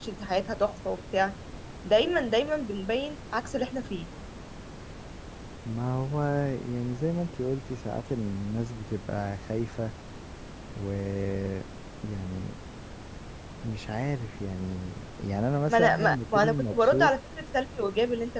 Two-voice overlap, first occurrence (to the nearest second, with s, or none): 16 s